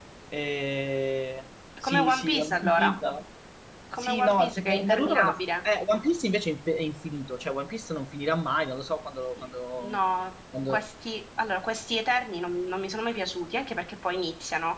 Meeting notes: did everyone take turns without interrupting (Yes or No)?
No